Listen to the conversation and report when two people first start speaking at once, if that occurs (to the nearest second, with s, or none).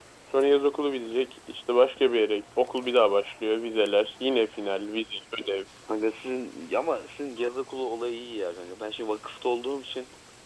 none